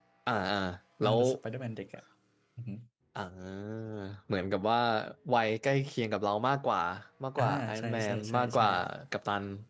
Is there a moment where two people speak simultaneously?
Yes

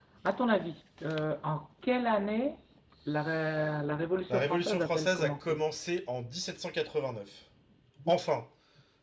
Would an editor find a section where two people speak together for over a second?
Yes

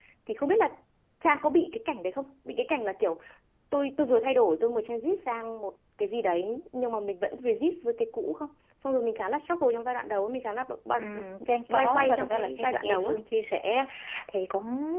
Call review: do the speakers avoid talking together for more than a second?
No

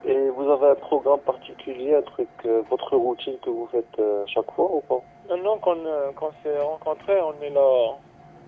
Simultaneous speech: No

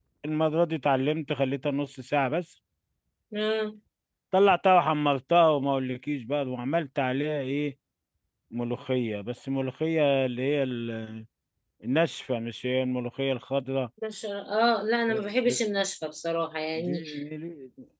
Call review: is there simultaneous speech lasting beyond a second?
No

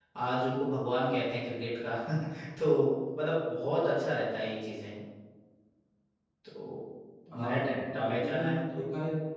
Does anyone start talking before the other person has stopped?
Yes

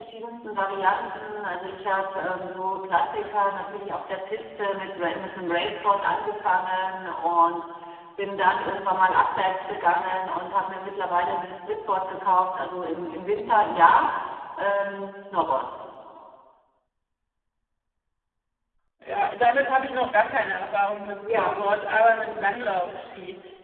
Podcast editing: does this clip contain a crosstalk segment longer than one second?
No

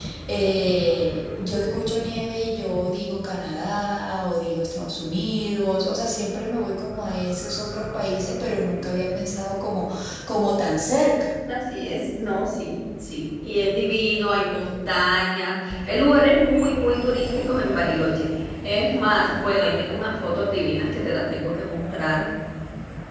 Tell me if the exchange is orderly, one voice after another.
Yes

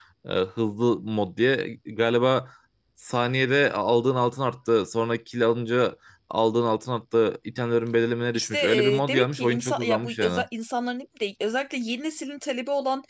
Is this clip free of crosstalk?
No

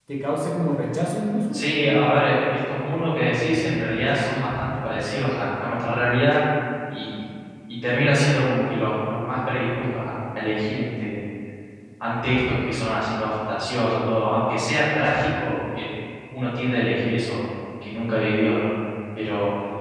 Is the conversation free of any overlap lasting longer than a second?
Yes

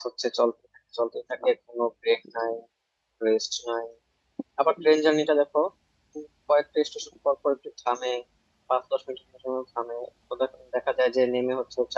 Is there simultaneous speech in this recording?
No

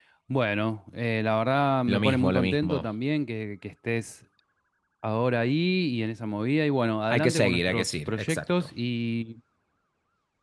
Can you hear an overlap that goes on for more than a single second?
Yes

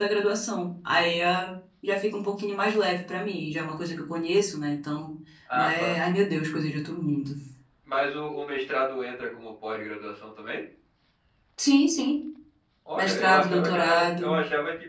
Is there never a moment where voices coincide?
No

